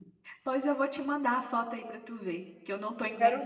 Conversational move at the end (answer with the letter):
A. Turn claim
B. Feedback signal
B